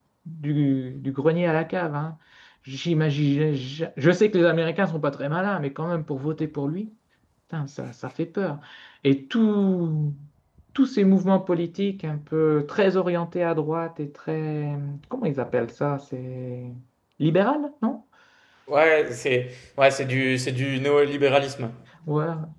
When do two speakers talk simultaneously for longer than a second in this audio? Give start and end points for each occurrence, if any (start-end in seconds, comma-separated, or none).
none